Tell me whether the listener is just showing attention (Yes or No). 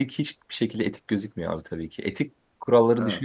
Yes